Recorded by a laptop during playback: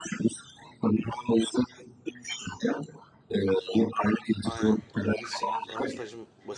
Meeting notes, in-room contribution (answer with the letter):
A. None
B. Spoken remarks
B